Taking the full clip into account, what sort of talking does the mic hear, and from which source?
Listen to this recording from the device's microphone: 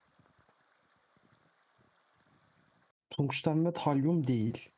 user only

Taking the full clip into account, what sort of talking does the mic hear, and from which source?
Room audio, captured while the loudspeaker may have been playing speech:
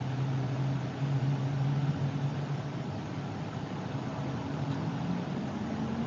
neither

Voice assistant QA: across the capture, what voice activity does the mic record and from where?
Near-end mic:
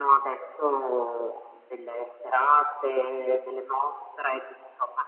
echo only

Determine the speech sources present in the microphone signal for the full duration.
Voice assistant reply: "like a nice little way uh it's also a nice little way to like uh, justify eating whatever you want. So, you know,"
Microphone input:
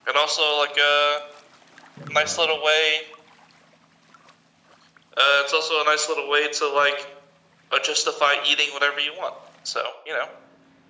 both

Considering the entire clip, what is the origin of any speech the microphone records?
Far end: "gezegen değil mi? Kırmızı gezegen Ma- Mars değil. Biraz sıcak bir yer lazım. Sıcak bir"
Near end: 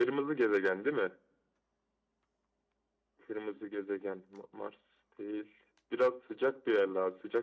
echo only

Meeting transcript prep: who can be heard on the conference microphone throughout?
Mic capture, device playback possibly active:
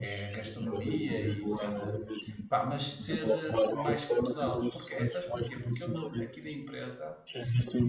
both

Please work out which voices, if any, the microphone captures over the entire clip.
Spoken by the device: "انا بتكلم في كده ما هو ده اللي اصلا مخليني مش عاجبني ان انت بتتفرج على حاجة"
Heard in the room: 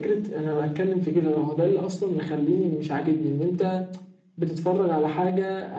echo only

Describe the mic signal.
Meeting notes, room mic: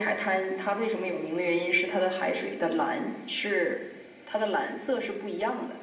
echo only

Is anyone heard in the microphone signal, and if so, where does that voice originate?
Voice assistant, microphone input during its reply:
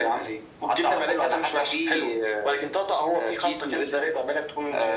echo only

